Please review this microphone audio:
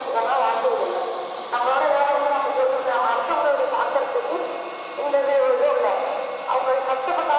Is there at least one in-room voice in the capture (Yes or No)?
No